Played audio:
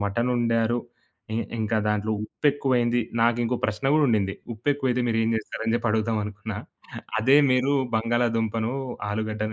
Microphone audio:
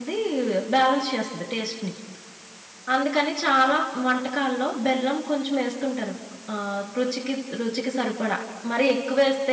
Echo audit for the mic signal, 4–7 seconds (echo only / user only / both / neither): user only